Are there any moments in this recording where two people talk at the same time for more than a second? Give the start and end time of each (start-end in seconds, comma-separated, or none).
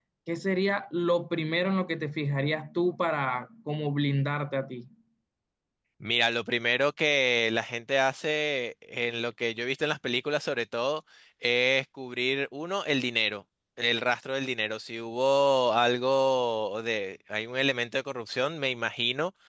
none